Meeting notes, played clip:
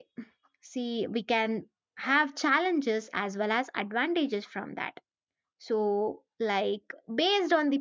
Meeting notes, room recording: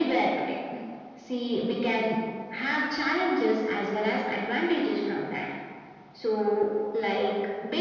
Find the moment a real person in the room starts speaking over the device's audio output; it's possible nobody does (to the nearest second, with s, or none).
none